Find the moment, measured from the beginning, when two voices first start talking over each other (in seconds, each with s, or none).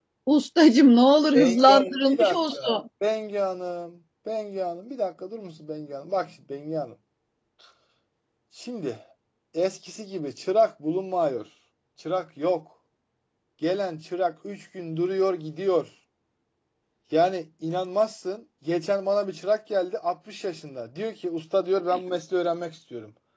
1.3 s